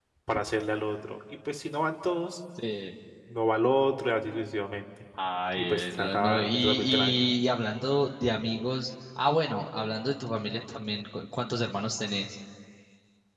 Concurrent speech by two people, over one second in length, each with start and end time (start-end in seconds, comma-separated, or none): 5.5-7.3